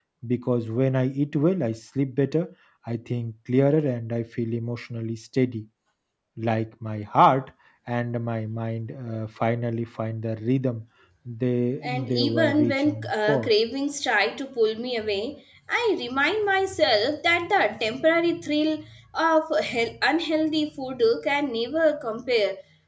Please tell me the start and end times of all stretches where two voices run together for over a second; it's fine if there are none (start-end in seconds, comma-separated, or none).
11.8-13.5